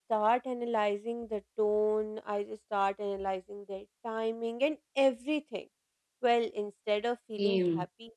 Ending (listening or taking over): listening